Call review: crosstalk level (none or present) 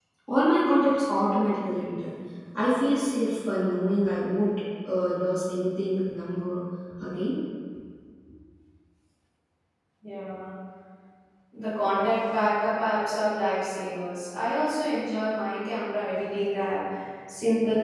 none